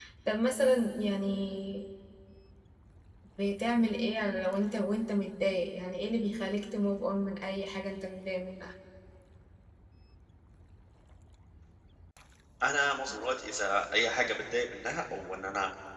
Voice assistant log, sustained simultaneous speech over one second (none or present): none